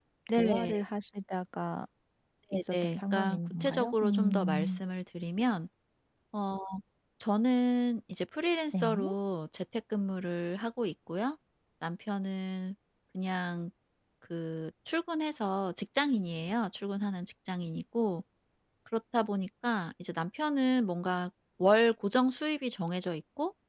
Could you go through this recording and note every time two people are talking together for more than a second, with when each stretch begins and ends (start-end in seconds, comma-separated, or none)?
2.7-4.8